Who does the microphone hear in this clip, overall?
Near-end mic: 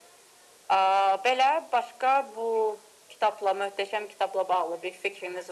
echo only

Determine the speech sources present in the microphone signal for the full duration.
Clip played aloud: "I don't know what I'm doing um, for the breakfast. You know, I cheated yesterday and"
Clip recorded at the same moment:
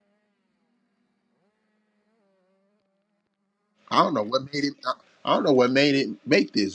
user only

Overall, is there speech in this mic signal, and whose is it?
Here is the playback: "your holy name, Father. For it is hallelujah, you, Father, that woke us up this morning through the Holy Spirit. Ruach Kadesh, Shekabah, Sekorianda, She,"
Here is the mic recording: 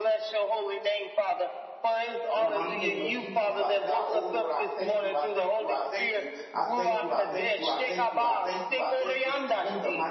both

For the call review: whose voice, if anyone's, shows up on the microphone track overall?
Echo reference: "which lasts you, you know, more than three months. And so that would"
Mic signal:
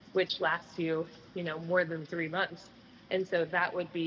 echo only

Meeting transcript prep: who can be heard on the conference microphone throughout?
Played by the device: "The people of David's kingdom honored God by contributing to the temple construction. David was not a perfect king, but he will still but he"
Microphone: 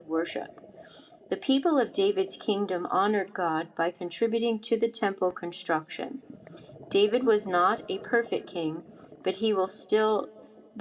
echo only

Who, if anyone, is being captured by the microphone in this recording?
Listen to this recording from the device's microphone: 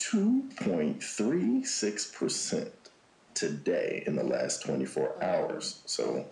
both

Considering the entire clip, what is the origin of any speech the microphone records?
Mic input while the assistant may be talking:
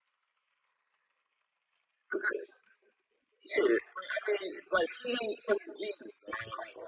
echo only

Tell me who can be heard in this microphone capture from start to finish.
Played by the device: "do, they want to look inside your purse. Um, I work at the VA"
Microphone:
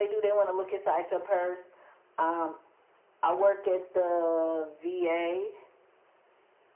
echo only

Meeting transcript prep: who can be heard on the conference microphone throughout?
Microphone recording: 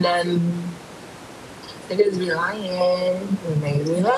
echo only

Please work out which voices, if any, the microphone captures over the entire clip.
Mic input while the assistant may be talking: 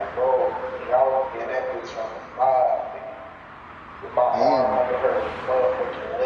both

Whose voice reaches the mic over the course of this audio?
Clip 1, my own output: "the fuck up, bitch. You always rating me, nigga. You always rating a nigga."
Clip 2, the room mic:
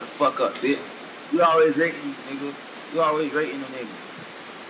echo only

